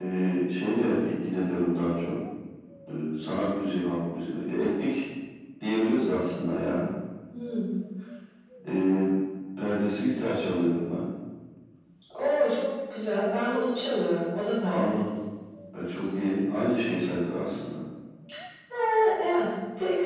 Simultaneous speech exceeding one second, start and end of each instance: none

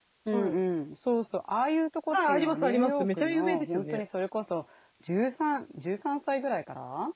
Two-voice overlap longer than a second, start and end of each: 2.1-4.0

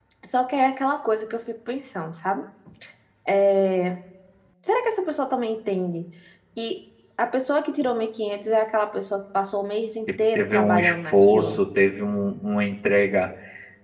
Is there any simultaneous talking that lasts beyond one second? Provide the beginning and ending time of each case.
10.3-11.6

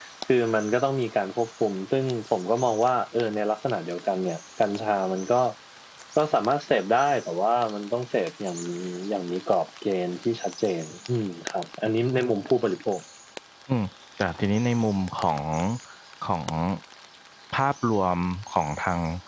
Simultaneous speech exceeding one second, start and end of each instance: none

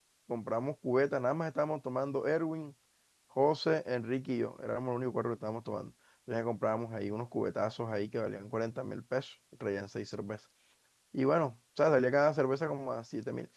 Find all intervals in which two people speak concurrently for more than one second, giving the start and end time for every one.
none

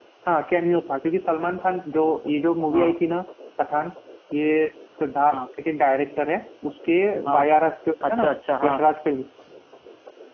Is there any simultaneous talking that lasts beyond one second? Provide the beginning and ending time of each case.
none

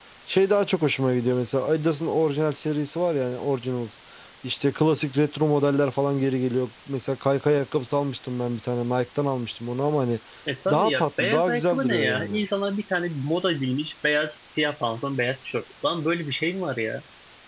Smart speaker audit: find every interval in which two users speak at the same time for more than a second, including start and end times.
10.7-12.4

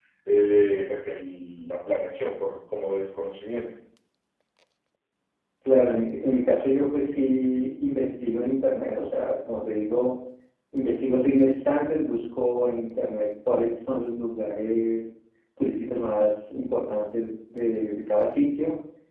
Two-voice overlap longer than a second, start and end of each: none

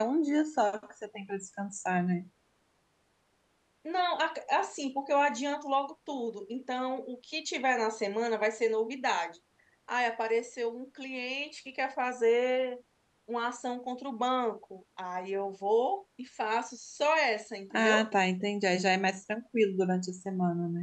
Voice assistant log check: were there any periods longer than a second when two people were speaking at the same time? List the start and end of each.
none

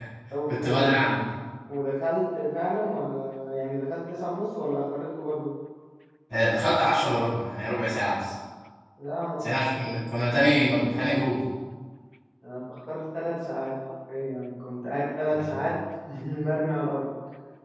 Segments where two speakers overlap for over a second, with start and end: none

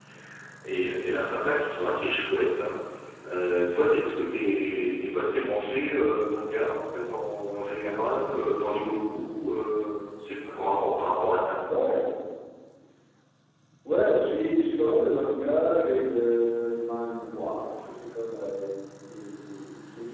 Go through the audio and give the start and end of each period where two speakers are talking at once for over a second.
none

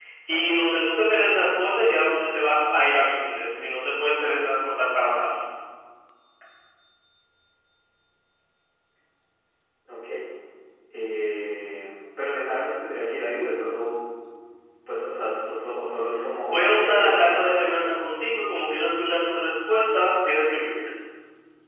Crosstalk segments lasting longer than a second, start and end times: 16.5-17.9

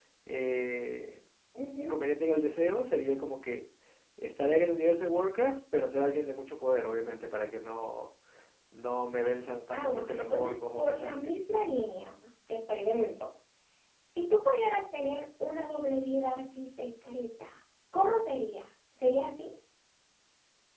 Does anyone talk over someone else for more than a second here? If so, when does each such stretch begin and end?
9.7-11.4

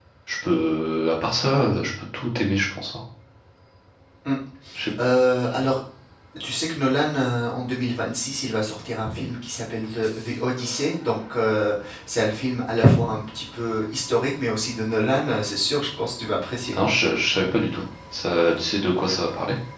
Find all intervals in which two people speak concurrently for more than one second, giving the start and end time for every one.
none

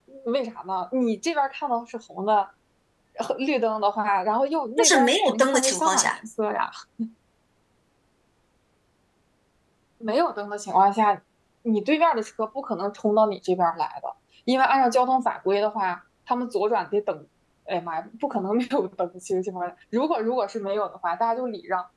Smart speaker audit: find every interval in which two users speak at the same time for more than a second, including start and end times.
4.8-6.2

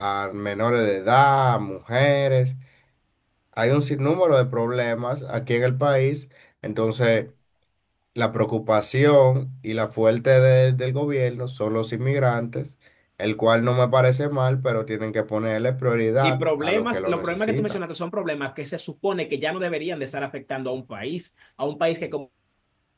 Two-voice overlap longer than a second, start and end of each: 16.2-17.8

